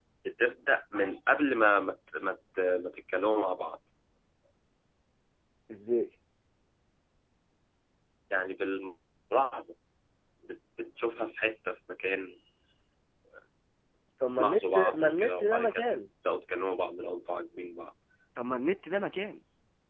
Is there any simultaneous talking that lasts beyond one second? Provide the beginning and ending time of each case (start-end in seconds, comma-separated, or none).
14.4-15.8